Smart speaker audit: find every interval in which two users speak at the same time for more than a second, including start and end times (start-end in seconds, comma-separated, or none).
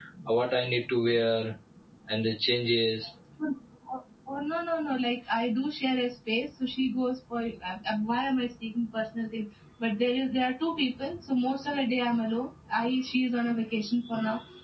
none